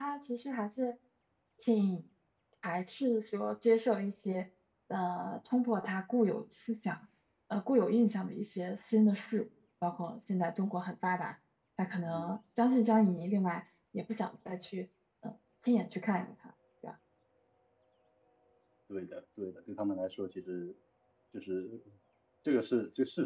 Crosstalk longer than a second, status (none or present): none